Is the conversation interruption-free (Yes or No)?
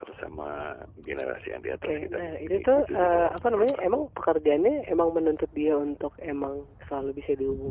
No